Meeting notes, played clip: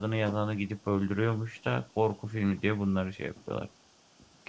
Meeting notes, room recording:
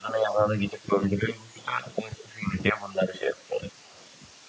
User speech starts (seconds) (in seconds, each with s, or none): none